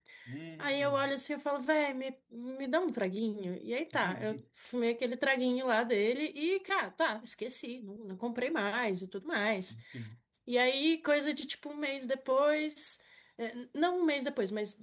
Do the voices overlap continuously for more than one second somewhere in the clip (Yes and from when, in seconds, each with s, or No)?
No